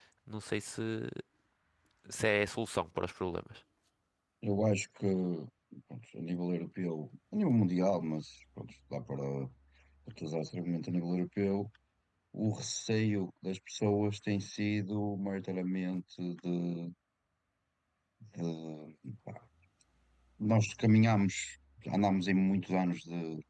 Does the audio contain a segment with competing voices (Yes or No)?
No